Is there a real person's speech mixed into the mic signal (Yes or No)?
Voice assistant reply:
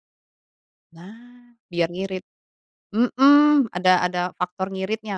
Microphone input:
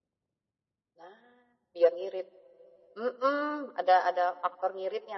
No